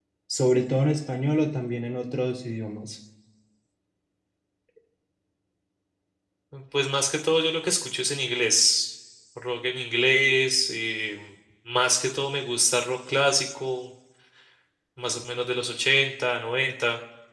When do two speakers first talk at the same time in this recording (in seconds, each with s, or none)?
none